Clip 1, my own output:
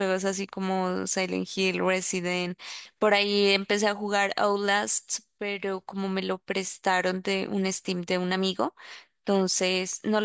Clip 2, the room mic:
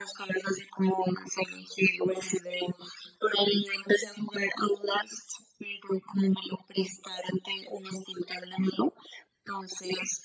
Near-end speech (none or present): none